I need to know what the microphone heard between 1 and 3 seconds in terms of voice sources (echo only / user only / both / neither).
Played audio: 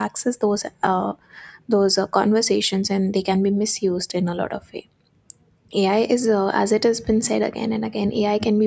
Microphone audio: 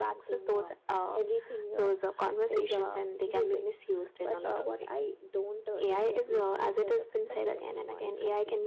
both